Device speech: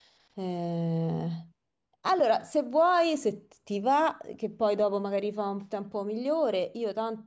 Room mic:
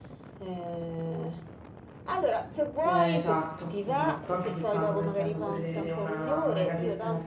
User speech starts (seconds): 2.8 s

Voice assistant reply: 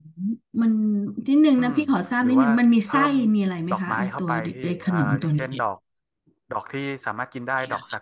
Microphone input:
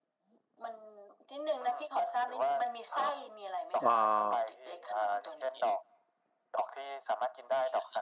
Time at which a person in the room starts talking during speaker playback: 3.8 s

